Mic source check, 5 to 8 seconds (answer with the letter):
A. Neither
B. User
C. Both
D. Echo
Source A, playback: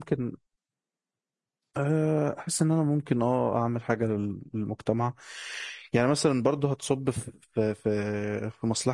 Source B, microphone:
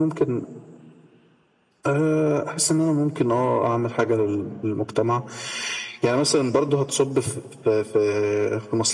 D